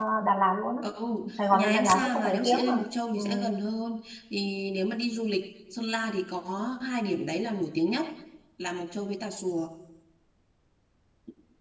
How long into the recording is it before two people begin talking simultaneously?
1.5 s

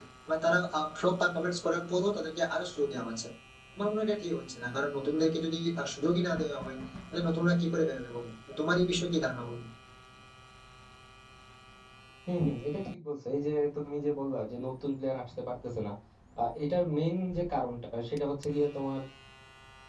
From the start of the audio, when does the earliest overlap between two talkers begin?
none

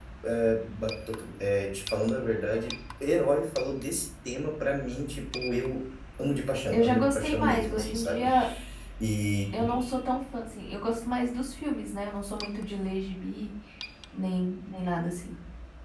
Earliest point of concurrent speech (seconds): 6.7 s

